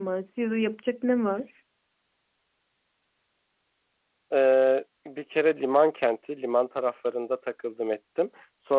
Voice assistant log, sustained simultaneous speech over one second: none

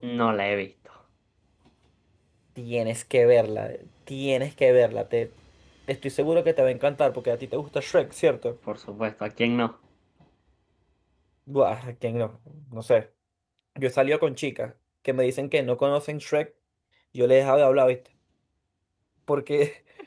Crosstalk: none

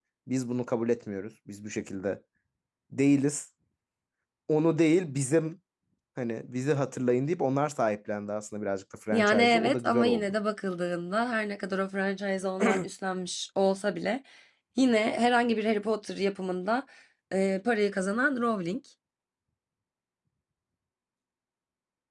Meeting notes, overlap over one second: present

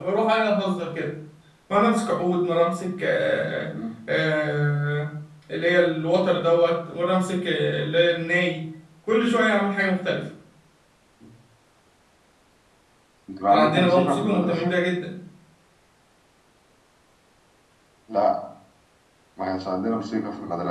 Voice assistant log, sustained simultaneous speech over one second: present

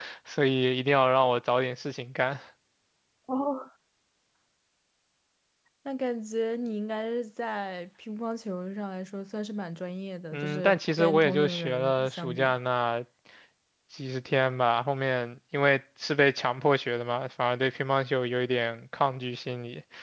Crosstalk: present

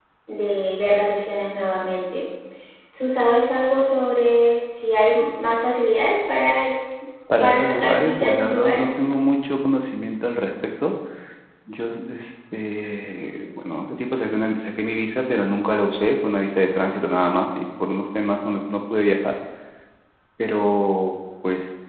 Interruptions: present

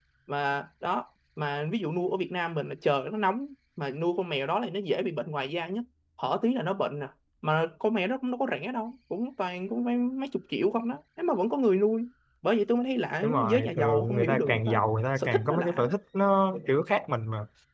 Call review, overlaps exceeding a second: present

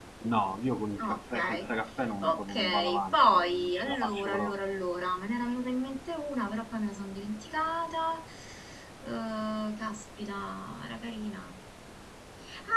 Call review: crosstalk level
present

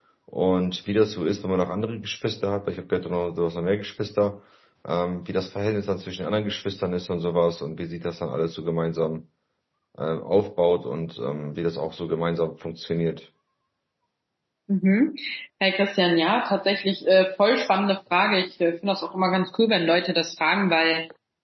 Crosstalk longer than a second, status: none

